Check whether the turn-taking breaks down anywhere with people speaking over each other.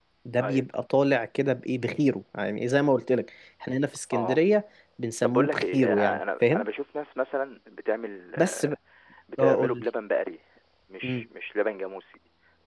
Yes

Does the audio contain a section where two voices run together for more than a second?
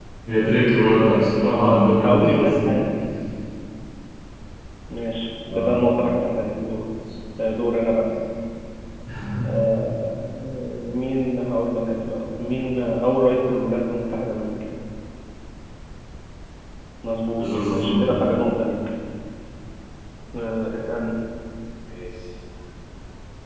Yes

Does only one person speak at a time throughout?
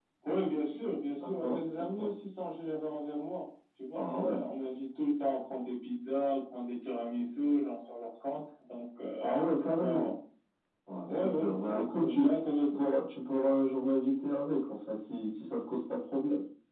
No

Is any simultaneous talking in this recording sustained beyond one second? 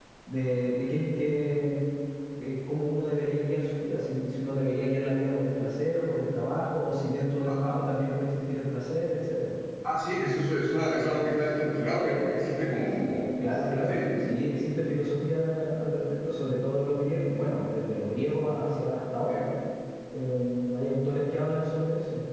No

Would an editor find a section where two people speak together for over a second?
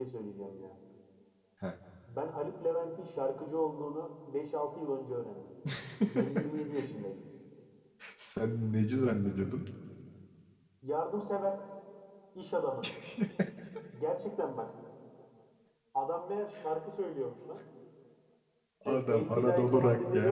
Yes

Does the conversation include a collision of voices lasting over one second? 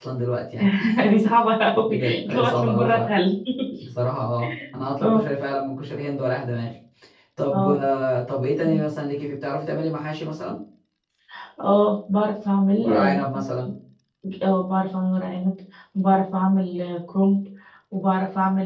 Yes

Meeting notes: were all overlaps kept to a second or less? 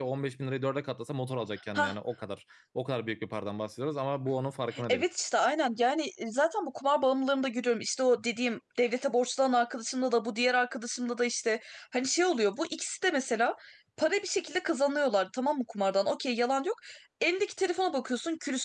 Yes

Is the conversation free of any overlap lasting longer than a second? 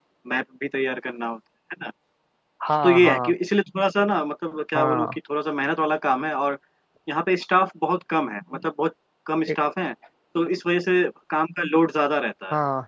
Yes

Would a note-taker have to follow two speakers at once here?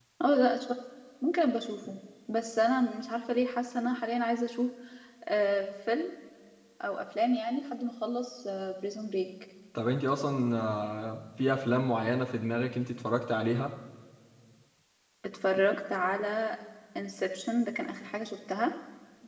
No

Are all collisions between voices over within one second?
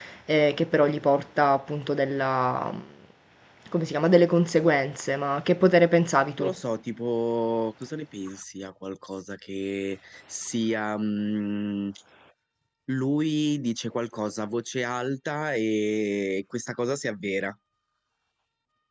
Yes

